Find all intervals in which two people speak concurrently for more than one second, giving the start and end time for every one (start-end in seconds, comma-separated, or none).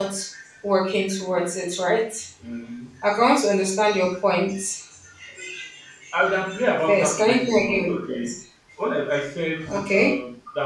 6.9-8.3